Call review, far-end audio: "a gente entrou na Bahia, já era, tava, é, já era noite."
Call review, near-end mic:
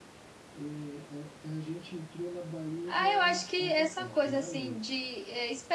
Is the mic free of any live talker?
No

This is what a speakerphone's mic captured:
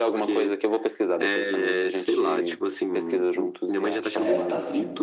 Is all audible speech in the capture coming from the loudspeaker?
No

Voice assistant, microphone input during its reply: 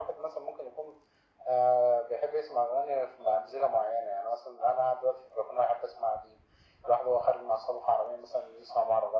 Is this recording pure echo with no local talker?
Yes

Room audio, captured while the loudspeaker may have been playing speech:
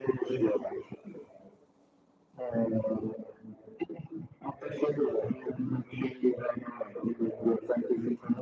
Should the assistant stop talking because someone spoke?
No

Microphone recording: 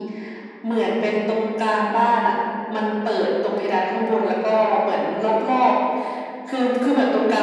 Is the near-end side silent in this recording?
Yes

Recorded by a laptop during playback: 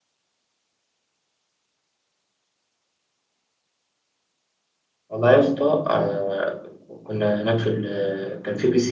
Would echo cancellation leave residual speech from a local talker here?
Yes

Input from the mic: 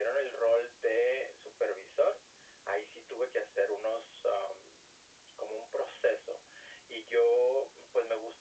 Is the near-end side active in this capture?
No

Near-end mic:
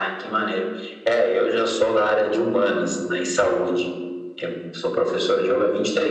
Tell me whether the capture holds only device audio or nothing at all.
Yes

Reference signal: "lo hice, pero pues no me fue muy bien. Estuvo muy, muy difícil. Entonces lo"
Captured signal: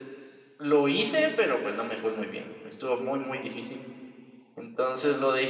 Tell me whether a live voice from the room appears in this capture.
No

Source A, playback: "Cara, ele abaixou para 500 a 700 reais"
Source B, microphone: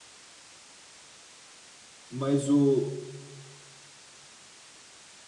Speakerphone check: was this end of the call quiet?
No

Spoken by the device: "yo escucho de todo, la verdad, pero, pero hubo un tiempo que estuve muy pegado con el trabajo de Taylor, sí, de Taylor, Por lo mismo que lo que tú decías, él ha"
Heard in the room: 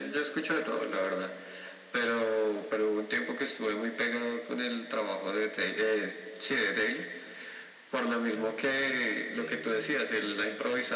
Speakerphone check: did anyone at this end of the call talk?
Yes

